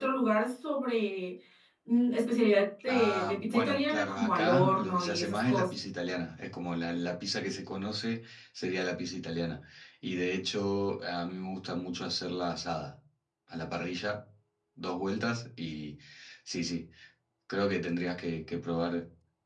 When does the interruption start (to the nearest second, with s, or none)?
3 s